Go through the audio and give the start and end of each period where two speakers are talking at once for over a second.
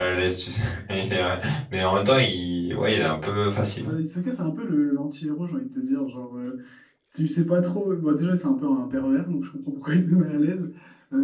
none

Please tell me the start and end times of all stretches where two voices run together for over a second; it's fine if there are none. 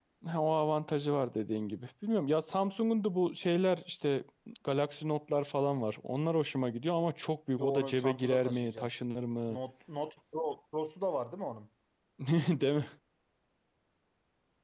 7.6-8.9

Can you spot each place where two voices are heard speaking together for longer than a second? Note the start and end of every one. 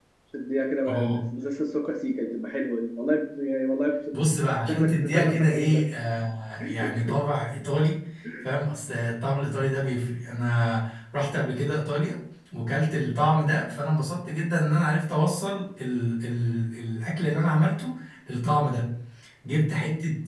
4.7-5.9

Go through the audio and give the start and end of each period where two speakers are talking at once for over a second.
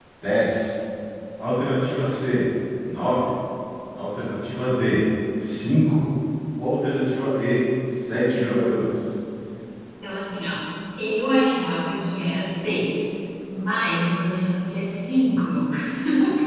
none

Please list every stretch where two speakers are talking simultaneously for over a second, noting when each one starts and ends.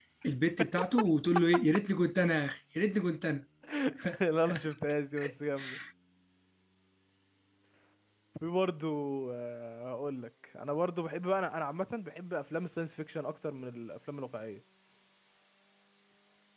none

